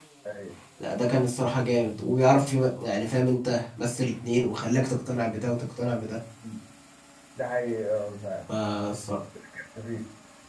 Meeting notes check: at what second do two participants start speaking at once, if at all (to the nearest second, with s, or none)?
none